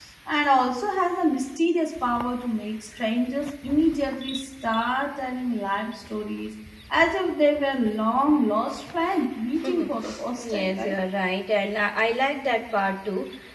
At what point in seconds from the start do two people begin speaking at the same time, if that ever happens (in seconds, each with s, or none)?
9.6 s